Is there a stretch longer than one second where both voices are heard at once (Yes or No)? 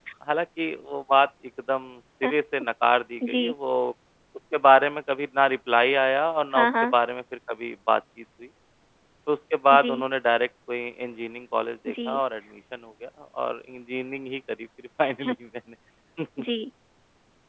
No